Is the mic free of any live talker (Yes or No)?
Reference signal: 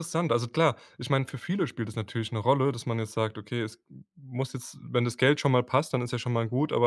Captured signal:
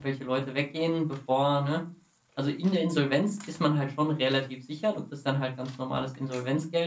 No